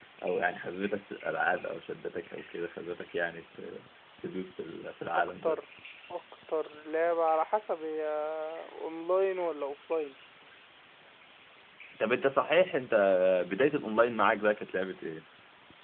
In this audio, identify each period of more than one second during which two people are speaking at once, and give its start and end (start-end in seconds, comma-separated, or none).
none